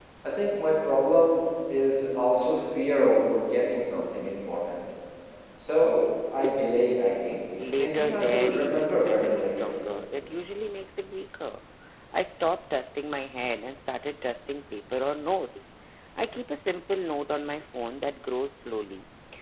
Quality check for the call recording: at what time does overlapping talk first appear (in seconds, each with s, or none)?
7.6 s